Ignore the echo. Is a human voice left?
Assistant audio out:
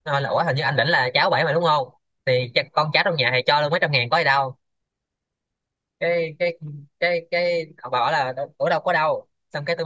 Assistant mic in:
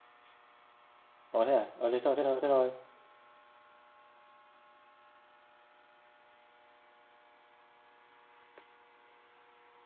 Yes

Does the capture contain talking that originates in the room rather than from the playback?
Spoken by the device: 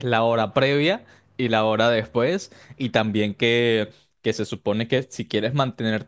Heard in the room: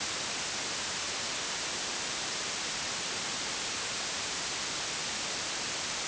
No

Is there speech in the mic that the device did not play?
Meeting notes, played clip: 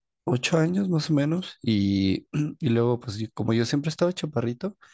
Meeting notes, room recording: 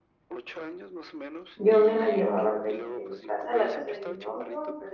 Yes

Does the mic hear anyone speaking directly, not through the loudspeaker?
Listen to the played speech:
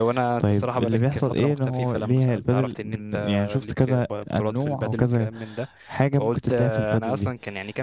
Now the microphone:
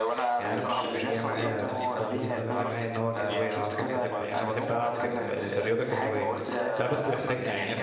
Yes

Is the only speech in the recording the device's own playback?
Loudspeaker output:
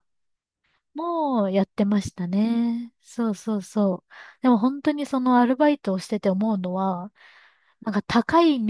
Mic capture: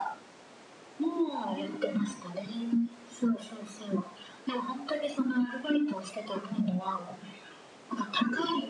No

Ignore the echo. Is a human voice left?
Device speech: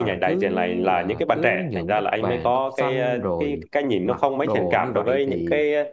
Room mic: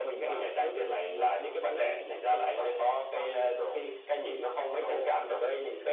No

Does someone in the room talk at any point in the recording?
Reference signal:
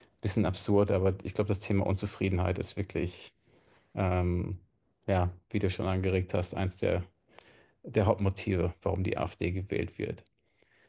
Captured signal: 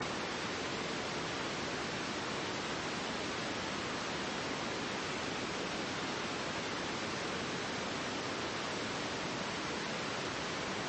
No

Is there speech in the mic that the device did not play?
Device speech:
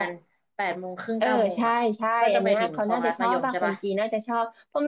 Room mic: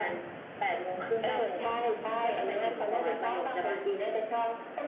No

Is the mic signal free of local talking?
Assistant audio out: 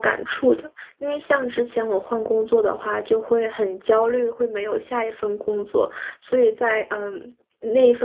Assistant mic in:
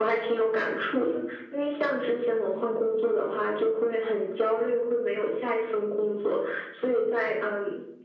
Yes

